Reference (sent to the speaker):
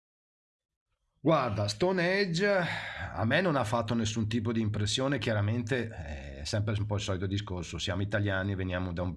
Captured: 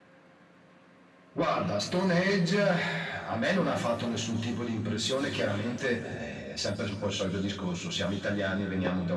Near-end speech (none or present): none